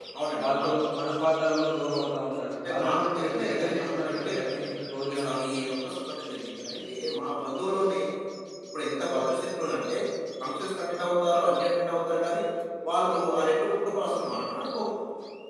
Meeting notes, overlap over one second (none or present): present